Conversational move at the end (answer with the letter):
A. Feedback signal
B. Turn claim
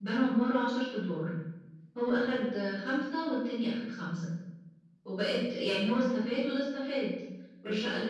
A